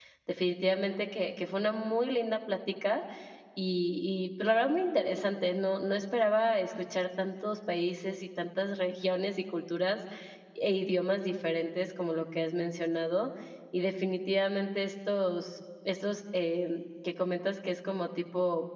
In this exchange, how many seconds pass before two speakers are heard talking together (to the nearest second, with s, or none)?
none